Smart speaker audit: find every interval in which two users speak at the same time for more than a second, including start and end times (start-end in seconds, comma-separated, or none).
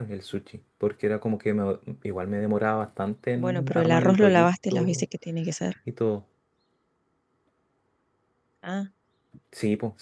3.4-5.0